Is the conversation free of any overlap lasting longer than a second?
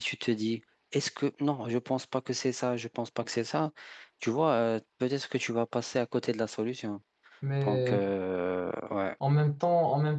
Yes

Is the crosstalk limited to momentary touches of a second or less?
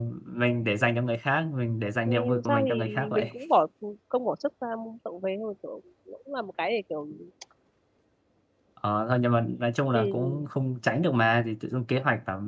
No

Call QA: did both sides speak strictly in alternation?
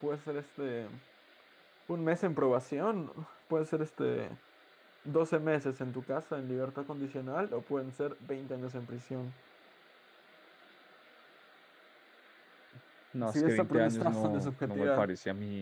No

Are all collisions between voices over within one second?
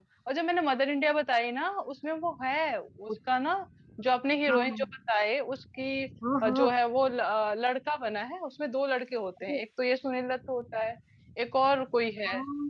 Yes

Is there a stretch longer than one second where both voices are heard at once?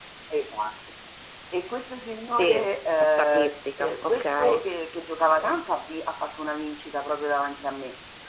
Yes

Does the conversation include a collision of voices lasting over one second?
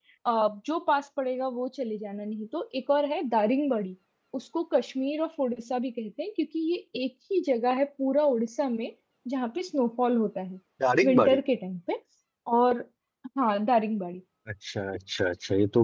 No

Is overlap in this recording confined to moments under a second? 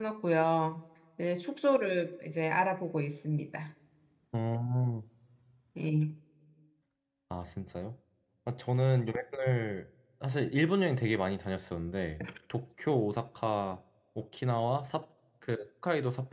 Yes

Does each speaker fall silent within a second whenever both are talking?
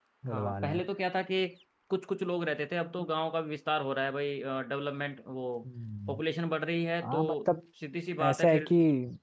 Yes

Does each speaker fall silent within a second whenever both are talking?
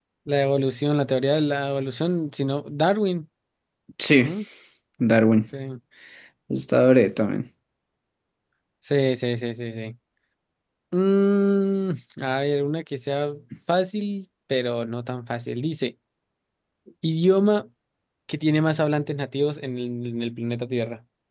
Yes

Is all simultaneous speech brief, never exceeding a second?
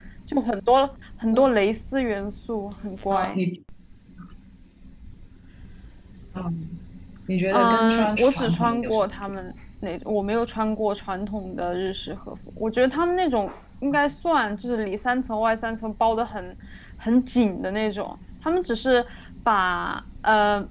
No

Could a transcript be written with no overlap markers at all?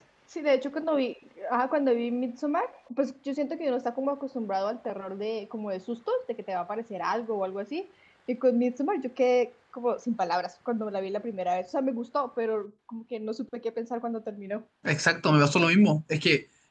Yes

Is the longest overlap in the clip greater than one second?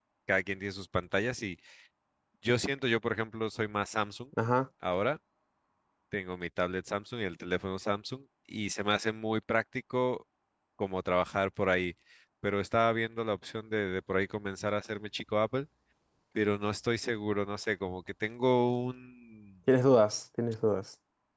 No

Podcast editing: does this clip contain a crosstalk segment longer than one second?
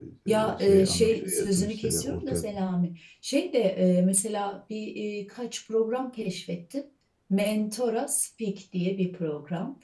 Yes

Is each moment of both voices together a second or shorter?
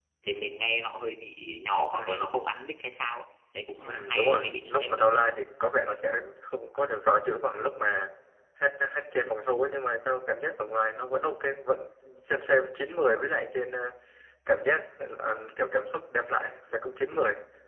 No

